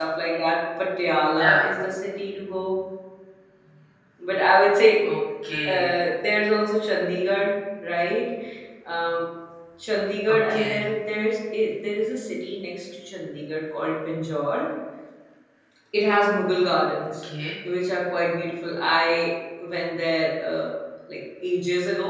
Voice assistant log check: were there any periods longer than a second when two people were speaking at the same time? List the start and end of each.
none

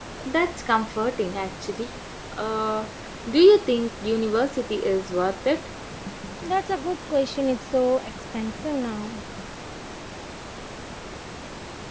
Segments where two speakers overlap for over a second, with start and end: none

